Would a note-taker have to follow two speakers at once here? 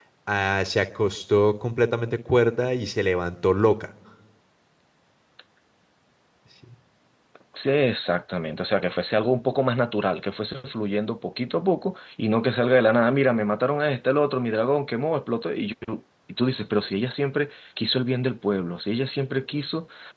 No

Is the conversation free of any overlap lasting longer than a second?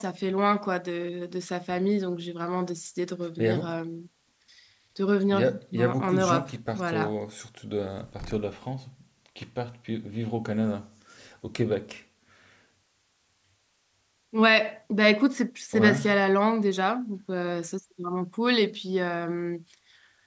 No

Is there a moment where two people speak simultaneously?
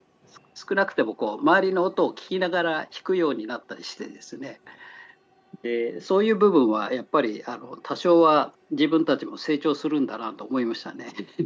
No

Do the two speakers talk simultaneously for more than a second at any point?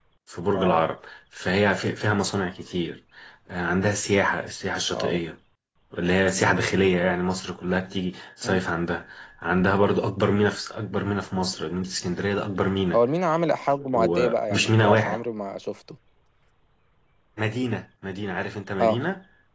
Yes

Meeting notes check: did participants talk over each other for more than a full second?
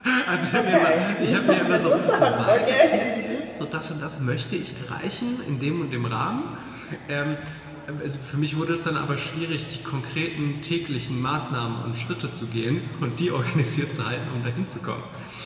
Yes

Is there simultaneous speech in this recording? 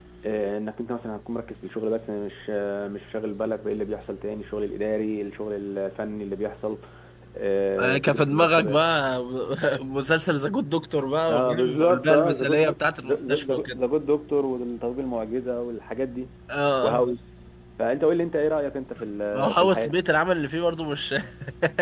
Yes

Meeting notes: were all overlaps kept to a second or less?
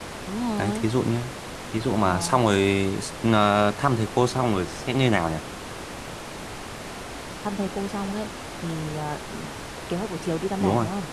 Yes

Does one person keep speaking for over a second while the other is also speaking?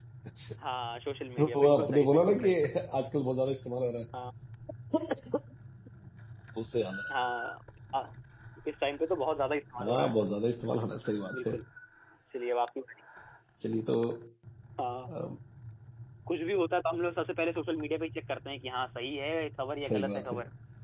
Yes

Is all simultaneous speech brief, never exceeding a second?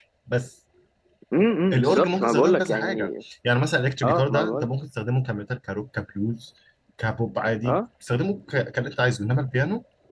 No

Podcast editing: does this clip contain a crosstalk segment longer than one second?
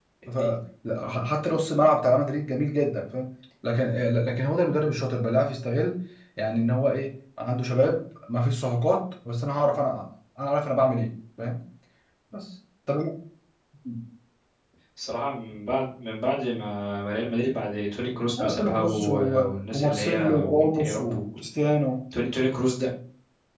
Yes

